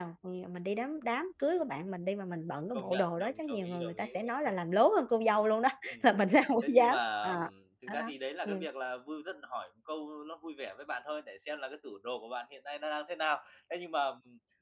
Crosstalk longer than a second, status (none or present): present